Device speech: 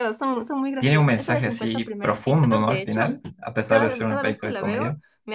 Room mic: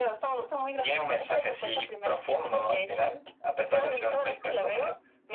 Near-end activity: none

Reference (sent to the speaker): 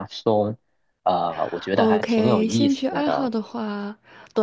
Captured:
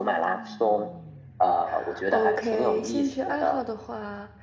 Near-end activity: none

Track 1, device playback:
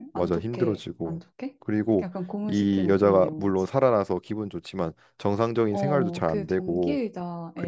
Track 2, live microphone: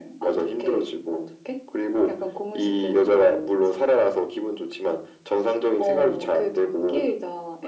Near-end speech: none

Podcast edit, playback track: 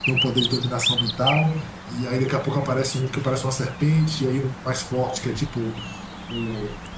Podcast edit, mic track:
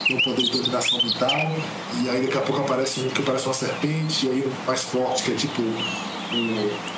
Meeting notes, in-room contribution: none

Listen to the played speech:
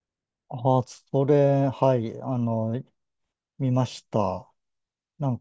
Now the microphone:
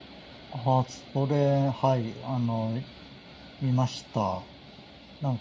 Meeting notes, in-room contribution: none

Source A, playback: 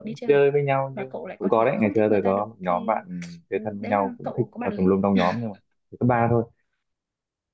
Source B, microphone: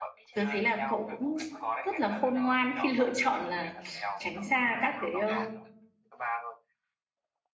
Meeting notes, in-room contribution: present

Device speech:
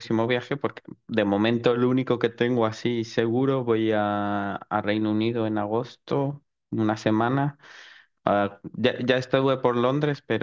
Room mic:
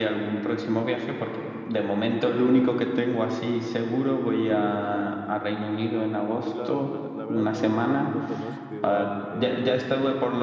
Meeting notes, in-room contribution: present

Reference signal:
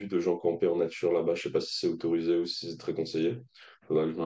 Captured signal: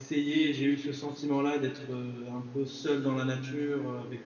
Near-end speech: present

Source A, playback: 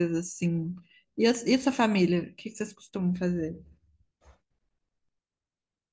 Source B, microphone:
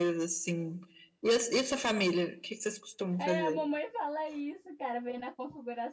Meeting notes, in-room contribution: present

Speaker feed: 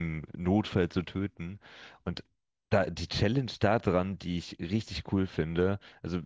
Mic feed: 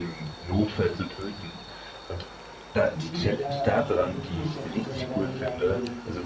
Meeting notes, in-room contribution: present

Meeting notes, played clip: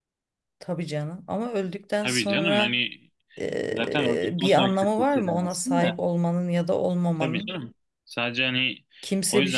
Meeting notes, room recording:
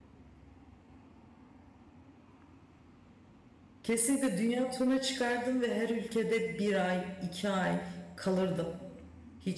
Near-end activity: present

